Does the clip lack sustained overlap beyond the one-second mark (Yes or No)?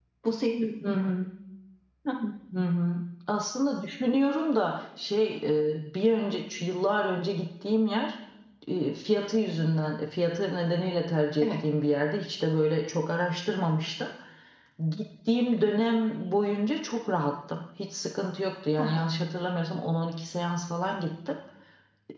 Yes